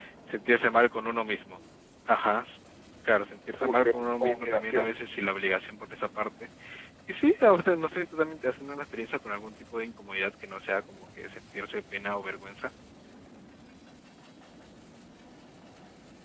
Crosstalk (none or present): present